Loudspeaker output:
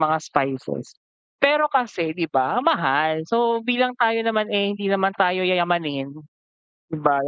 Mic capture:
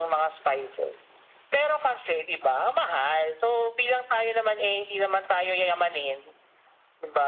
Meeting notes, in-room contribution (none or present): none